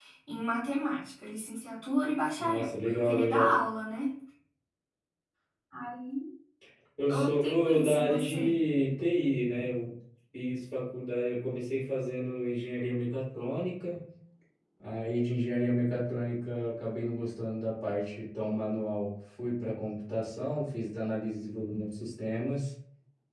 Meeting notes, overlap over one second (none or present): present